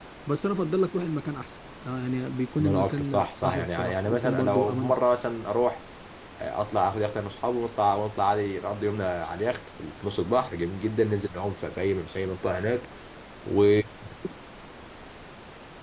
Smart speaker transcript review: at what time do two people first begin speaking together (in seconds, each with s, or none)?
2.6 s